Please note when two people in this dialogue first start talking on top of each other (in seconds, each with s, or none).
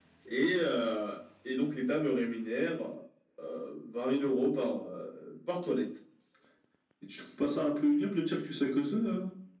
none